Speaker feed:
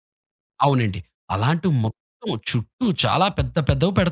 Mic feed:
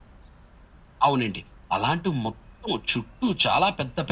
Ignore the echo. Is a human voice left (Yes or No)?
No